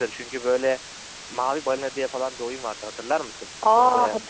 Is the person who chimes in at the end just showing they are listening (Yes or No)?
No